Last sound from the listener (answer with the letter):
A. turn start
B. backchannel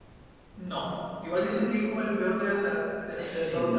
A